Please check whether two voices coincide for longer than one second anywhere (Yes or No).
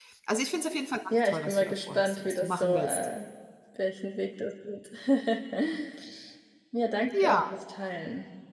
Yes